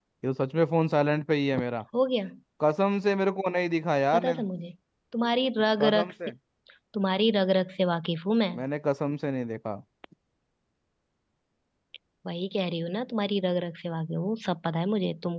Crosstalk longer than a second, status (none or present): none